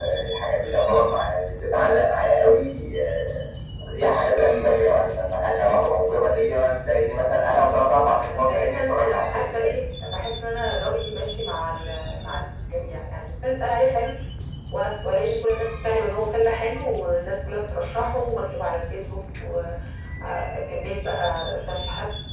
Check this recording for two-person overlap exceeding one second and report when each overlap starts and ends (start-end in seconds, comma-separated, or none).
8.1-9.7